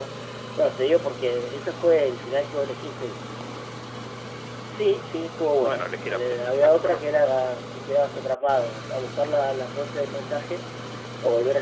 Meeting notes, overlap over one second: present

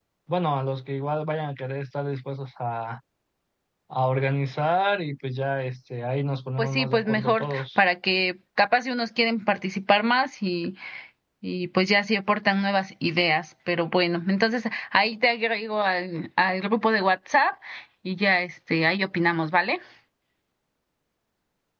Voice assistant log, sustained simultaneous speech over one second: present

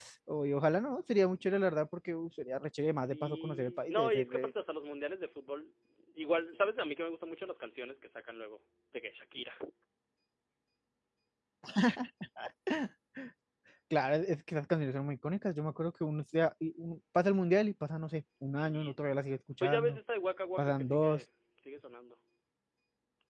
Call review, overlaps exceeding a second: present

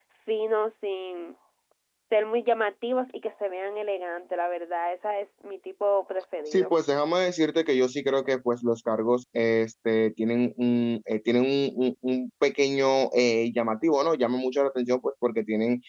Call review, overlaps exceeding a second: none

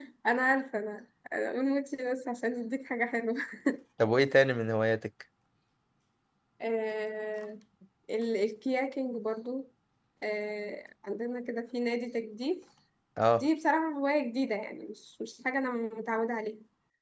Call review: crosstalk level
none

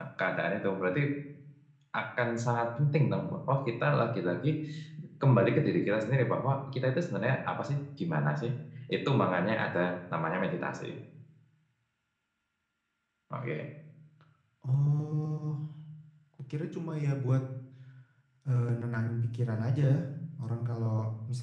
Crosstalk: none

